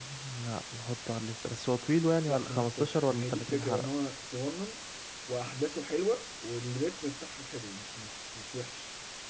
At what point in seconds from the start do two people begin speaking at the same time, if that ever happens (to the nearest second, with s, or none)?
2 s